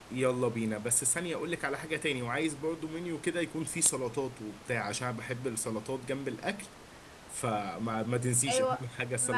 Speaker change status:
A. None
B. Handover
B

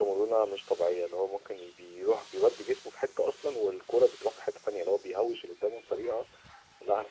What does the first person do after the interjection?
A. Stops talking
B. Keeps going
B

